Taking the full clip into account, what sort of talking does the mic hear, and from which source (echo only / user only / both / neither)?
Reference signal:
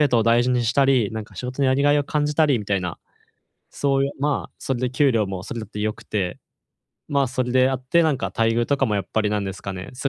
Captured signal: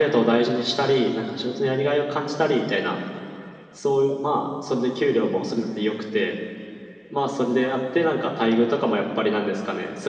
echo only